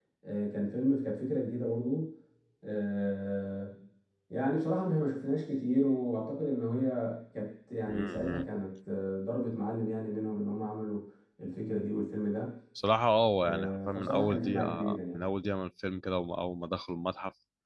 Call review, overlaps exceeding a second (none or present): present